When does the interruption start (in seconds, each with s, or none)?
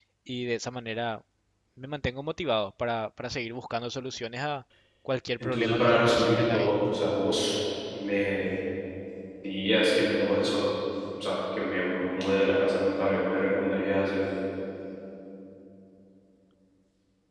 5.4 s